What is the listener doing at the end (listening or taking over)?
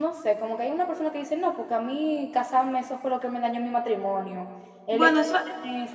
listening